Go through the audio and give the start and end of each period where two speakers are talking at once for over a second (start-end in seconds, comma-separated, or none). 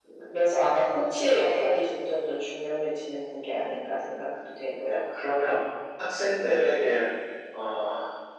none